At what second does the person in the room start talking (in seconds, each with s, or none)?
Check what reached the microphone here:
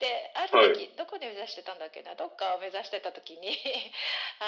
0.5 s